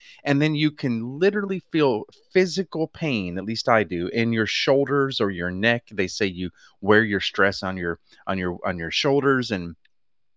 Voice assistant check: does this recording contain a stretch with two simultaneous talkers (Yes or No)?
No